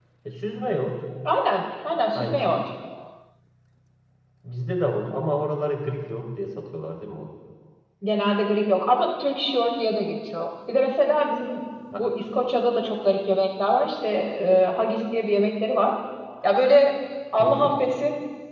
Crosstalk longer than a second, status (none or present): none